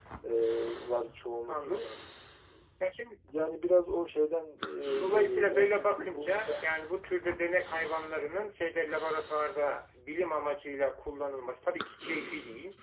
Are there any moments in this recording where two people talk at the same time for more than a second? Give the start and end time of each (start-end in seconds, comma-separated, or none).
5.0-6.5